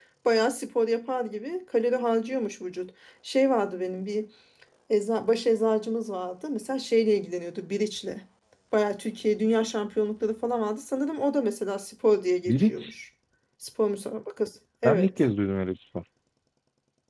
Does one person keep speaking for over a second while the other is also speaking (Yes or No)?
No